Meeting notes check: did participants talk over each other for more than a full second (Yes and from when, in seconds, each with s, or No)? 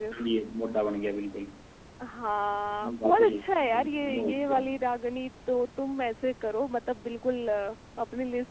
Yes, from 2.8 s